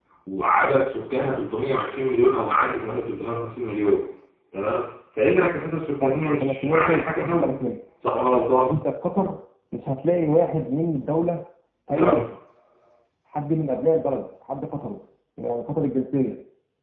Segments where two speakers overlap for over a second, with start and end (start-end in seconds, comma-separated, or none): 6.0-7.5